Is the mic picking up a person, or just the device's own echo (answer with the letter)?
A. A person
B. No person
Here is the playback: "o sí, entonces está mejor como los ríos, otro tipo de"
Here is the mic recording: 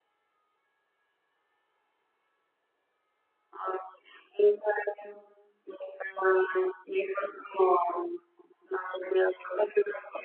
B